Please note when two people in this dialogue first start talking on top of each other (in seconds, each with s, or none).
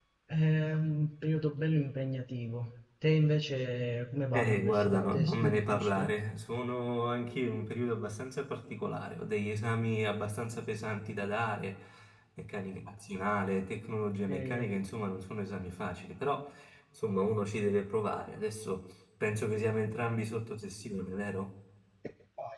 4.3 s